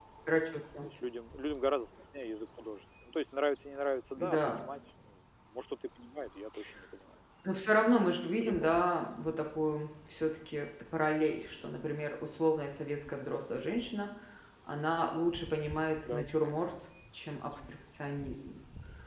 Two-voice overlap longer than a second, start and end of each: 7.6-9.0

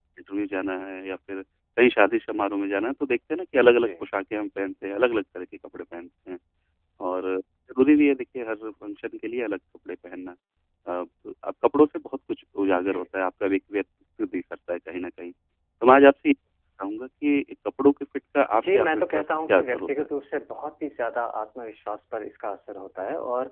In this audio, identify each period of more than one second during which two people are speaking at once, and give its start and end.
18.5-20.1

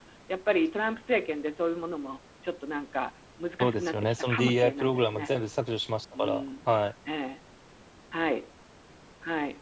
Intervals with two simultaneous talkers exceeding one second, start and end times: 3.6-5.3

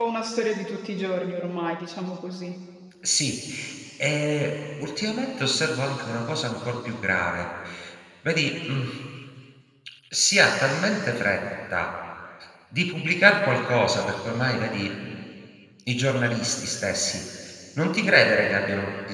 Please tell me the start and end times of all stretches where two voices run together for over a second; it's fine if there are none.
none

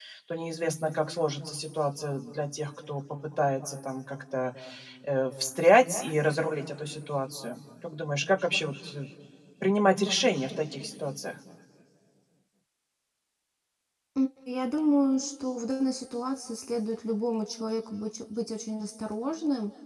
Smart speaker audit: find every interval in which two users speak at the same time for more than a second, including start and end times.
none

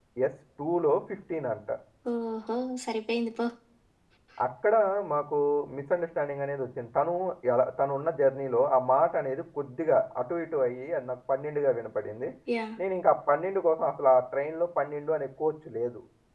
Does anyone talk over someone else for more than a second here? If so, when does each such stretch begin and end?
none

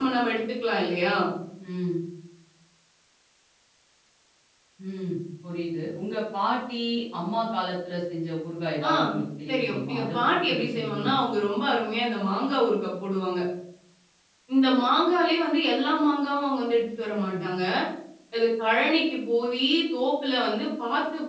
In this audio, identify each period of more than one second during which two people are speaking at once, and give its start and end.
9.5-11.2

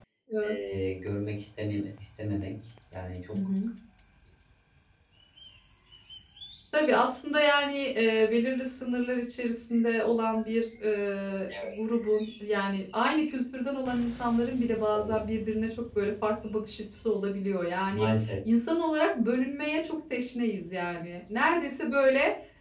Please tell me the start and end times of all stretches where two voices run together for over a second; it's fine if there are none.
none

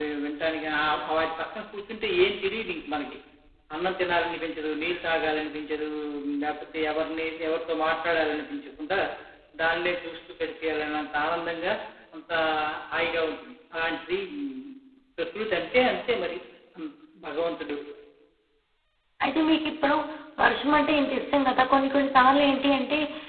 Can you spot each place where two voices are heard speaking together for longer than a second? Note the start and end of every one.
none

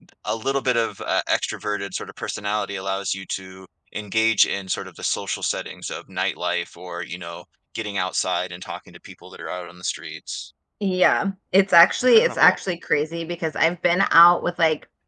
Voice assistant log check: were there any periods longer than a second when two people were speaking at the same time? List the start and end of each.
none

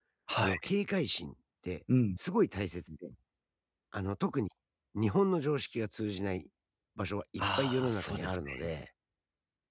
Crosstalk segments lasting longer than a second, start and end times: 7.4-8.7

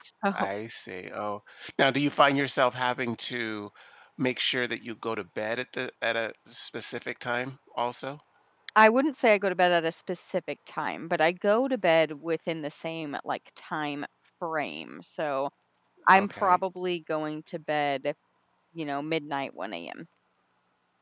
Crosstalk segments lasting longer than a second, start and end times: none

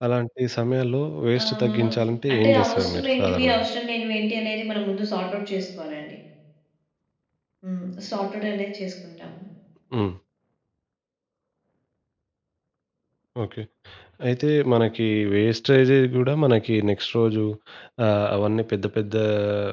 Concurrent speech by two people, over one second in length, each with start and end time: 1.4-3.7

